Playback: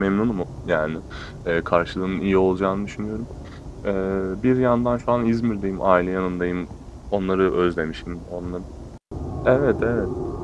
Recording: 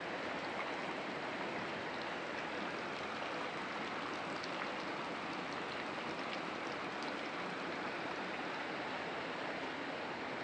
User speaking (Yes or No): No